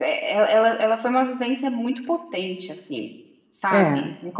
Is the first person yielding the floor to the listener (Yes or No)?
No